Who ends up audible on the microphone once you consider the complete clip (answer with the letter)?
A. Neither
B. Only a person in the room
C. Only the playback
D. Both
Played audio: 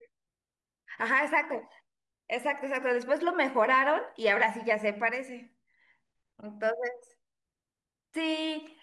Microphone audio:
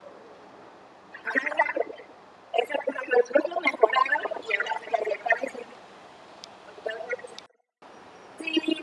C